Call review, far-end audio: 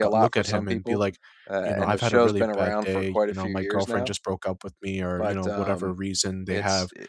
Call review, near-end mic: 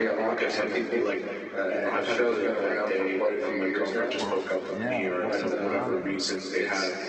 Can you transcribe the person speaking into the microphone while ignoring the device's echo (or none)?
Well, yeah, like we'll sit down and if,